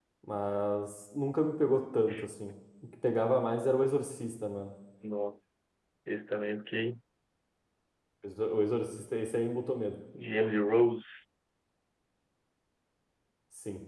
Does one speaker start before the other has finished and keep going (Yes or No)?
No